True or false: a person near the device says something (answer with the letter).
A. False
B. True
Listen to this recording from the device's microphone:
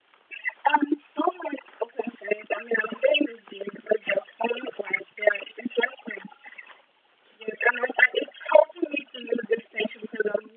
A